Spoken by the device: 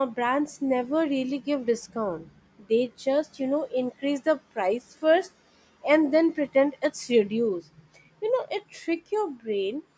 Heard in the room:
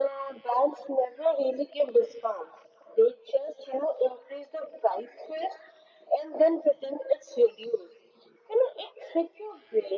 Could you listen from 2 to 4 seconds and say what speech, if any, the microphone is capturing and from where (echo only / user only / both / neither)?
echo only